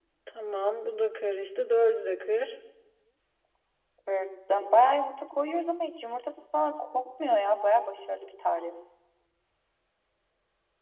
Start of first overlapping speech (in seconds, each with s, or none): none